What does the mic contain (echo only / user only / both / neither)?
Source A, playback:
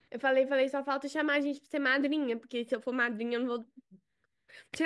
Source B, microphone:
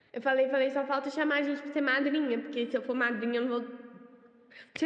echo only